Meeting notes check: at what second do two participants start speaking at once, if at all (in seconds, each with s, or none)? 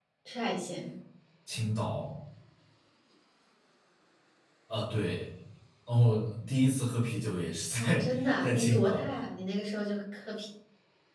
7.8 s